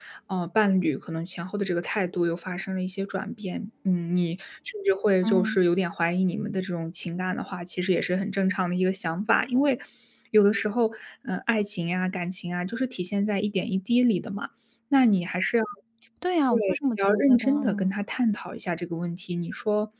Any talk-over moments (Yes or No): Yes